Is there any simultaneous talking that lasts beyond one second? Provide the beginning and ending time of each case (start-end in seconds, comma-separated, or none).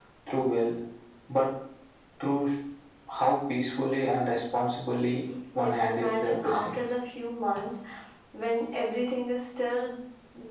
5.6-6.8